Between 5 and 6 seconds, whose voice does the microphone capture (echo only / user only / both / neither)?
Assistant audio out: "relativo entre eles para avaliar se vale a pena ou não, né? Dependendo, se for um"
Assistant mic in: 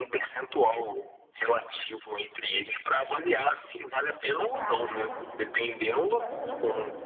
both